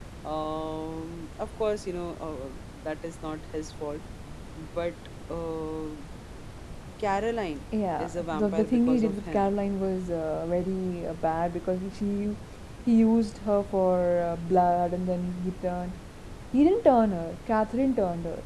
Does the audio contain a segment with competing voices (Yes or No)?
Yes